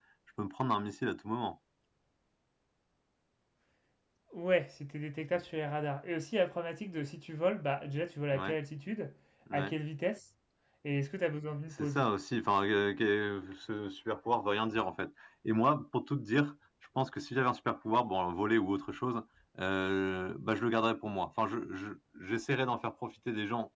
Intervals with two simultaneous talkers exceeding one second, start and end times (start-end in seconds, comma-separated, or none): none